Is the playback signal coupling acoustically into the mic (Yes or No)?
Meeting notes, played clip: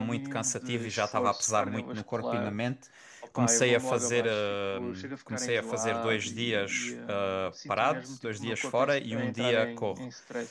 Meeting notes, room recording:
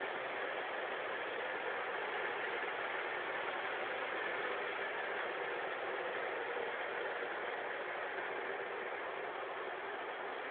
No